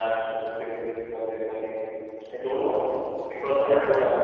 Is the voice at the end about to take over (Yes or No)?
Yes